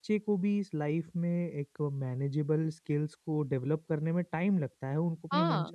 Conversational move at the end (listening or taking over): listening